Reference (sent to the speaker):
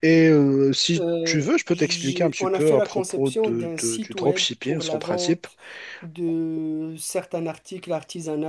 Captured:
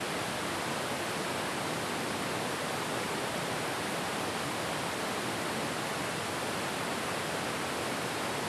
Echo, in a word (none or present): none